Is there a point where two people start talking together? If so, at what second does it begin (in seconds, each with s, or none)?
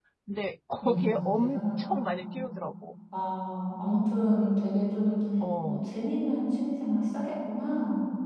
0.8 s